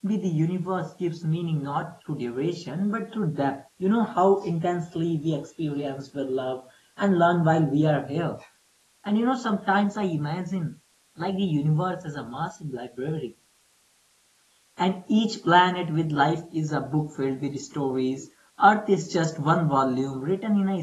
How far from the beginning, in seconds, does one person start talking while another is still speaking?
none

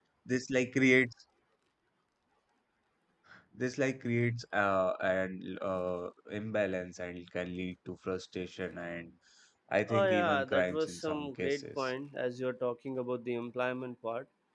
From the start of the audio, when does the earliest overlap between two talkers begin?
10 s

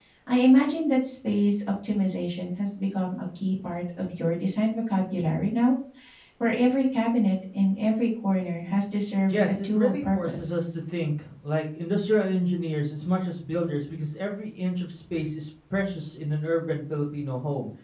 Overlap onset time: 9 s

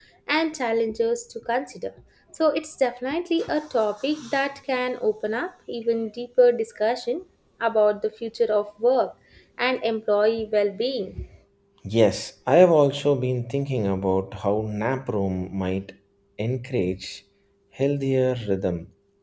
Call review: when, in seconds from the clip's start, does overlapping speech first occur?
none

